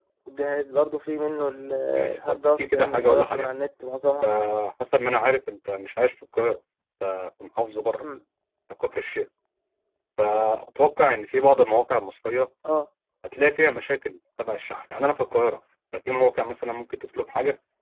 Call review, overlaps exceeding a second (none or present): present